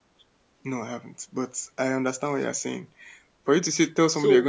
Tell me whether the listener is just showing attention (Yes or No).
Yes